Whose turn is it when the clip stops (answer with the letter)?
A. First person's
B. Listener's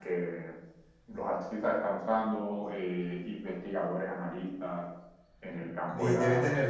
B